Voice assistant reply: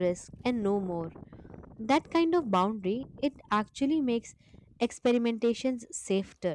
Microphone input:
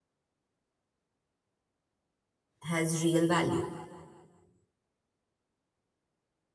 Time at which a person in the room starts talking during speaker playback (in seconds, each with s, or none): 2.6 s